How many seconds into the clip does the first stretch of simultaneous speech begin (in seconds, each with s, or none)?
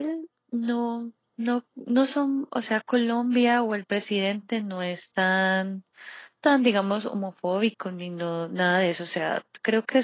none